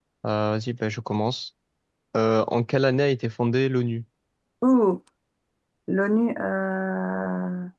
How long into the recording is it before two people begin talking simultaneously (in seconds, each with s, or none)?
none